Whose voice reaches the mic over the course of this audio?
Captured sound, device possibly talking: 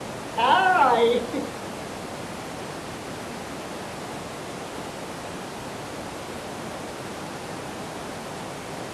user only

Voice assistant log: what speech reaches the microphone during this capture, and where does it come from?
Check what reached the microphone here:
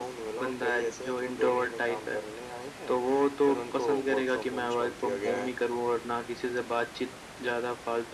echo only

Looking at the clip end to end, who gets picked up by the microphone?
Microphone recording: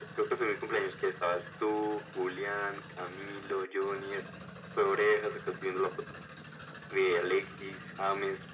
echo only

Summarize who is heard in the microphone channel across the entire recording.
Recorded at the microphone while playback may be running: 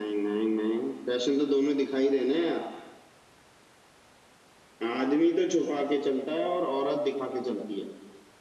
echo only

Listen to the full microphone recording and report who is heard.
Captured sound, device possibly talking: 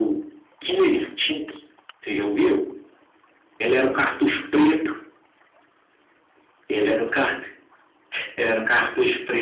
echo only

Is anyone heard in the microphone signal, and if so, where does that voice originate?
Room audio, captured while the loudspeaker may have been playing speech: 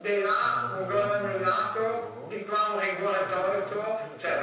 both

